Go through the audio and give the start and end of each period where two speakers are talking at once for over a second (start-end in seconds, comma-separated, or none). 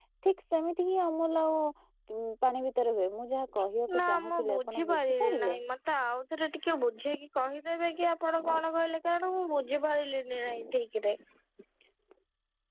4.0-5.6